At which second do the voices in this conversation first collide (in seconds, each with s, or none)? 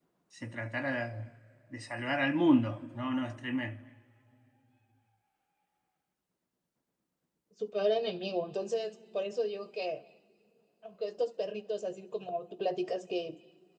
none